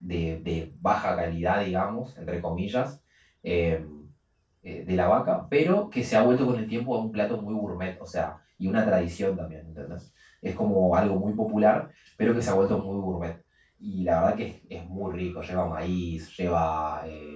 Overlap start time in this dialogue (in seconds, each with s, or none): none